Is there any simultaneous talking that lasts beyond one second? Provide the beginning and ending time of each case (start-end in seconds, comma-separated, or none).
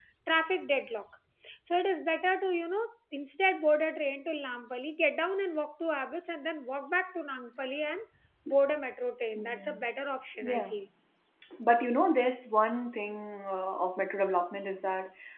none